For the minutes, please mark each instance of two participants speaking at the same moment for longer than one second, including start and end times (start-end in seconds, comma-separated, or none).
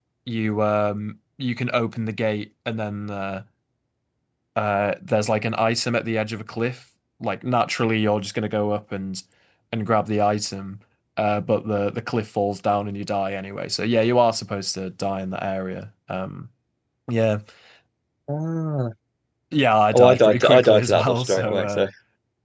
19.9-21.6